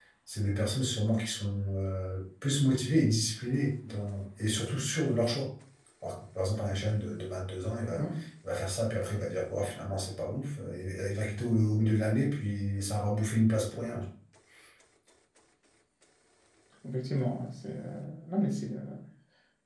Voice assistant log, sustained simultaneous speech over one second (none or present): none